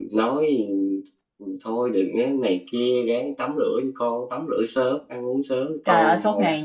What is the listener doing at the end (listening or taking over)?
taking over